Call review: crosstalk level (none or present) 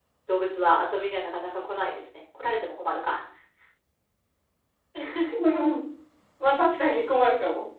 none